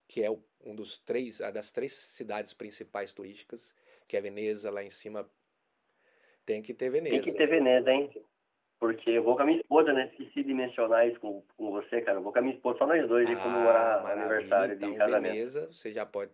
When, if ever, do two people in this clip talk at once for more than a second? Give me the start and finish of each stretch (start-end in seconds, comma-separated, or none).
13.2-15.4